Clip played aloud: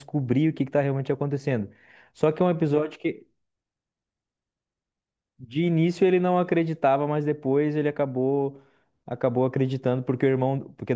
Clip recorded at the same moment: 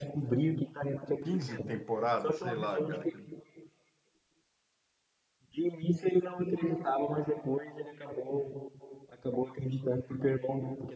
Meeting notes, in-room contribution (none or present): present